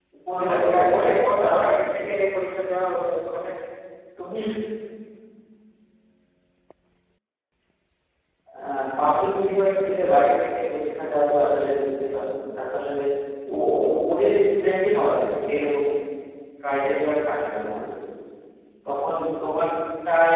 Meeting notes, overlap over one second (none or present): present